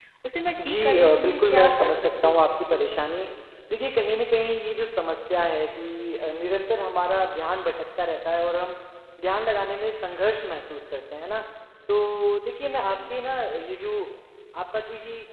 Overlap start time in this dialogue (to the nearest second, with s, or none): 1 s